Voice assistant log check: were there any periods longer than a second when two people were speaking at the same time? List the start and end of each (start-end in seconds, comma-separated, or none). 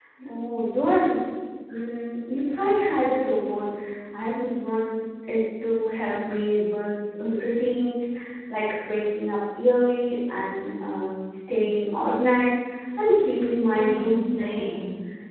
13.5-14.8